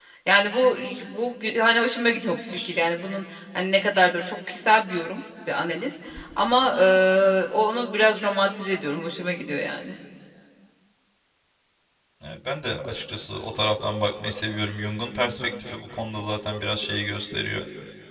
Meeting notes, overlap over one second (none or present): none